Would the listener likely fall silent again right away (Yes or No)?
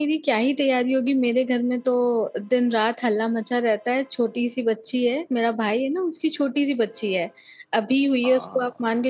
Yes